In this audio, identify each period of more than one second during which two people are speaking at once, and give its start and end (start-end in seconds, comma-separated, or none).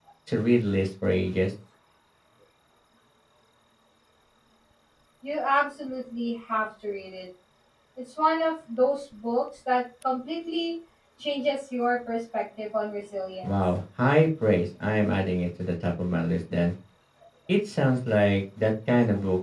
none